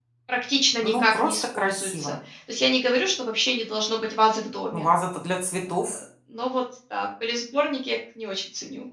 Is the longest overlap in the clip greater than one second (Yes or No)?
Yes